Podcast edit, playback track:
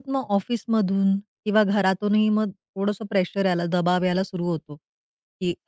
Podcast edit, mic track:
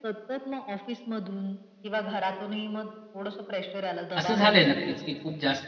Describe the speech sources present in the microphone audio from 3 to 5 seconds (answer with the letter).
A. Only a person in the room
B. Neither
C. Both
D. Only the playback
C